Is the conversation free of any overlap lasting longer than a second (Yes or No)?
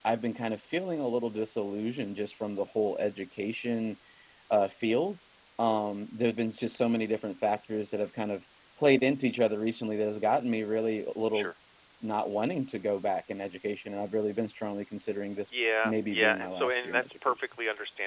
No